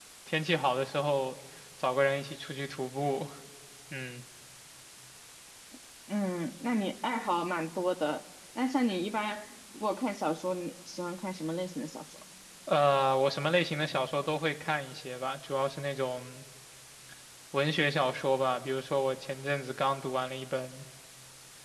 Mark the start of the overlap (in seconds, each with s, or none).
none